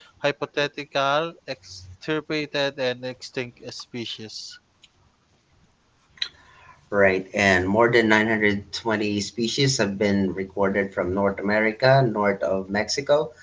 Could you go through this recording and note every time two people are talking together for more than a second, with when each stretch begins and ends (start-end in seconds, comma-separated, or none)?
none